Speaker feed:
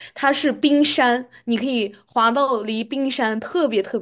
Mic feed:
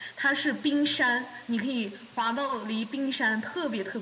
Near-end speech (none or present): none